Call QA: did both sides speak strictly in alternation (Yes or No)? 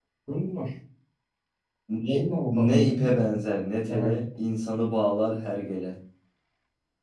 No